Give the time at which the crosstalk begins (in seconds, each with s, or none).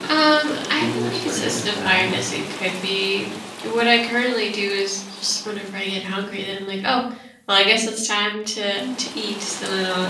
0.7 s